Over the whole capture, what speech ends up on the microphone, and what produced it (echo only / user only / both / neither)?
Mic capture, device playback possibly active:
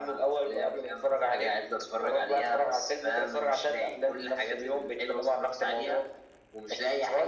echo only